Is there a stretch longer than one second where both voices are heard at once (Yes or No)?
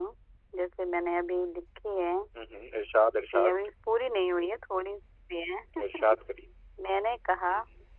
No